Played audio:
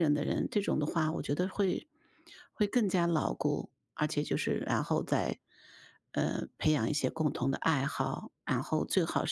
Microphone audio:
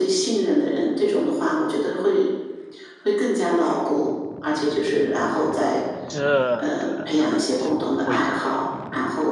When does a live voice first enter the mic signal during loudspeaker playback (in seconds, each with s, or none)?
6.1 s